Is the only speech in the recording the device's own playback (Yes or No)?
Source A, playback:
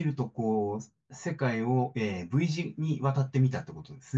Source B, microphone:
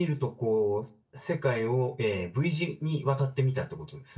Yes